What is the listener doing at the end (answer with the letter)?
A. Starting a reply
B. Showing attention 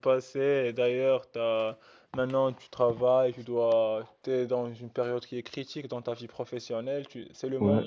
B